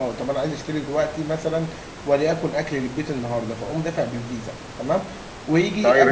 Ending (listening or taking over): taking over